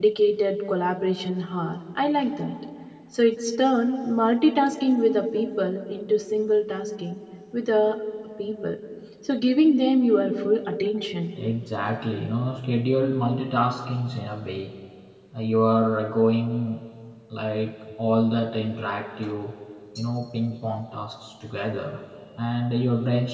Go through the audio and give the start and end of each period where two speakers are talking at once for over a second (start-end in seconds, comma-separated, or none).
none